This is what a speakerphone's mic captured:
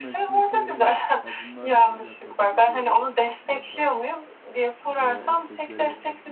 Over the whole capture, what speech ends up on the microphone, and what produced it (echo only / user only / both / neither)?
both